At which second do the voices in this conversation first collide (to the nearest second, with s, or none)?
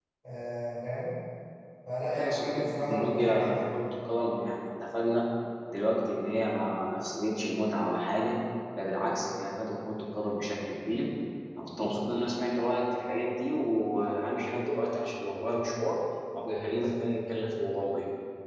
2 s